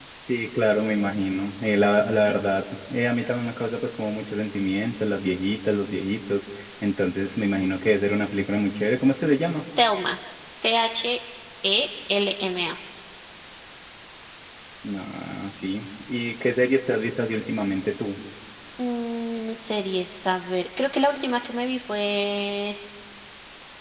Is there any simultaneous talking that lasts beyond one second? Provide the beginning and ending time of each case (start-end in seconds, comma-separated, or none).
none